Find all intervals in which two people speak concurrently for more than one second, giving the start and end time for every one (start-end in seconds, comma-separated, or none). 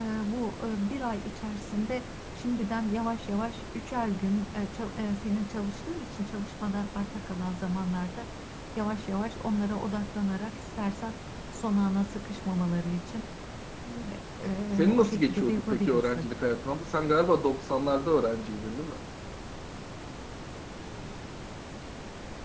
14.8-16.3